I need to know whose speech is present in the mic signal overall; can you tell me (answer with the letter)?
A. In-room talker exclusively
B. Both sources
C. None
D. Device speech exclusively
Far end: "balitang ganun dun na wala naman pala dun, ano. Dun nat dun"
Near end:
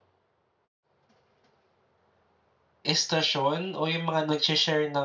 A